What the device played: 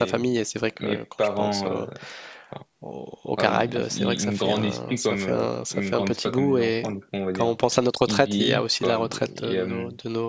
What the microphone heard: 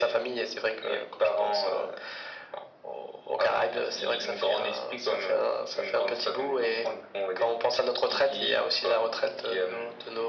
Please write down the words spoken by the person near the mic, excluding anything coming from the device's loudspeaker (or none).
none